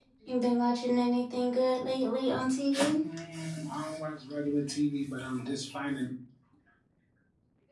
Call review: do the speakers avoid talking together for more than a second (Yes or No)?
Yes